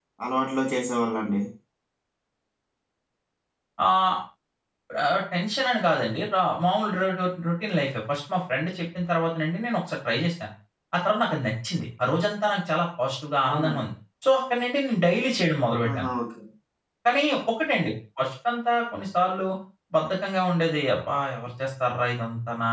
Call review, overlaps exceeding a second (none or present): none